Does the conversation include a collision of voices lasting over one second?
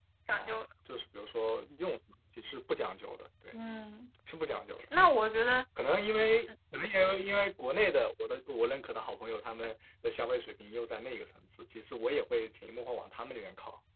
No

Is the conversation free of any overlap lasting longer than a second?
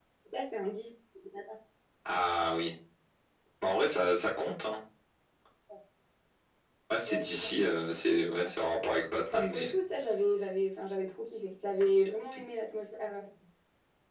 Yes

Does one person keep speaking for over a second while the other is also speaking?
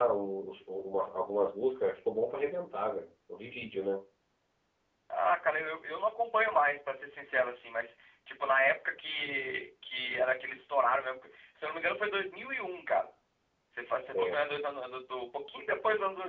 No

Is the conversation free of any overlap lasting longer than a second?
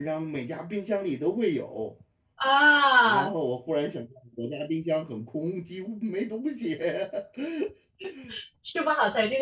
Yes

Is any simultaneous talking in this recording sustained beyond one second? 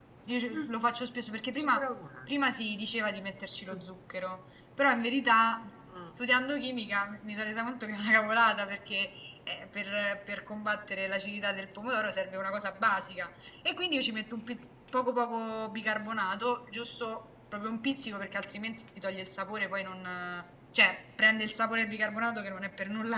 No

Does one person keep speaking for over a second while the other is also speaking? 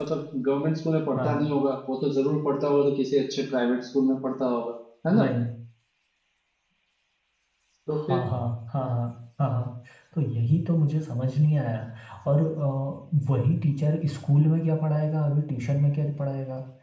No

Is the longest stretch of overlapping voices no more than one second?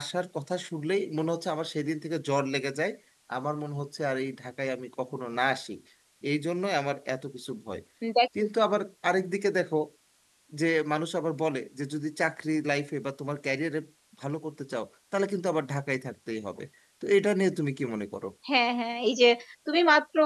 Yes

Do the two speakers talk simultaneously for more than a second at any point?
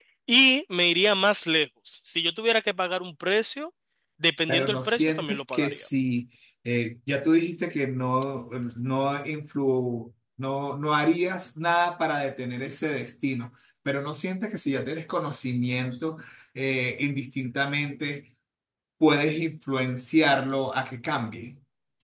Yes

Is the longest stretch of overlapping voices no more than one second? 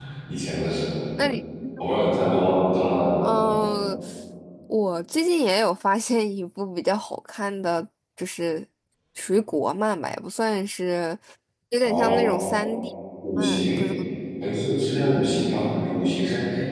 Yes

